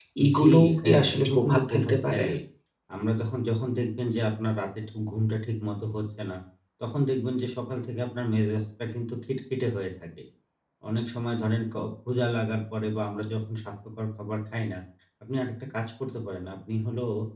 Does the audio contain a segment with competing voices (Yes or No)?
Yes